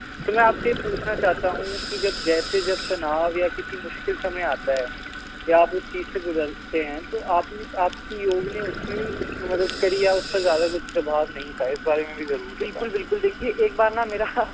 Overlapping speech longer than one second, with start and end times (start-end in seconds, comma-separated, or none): none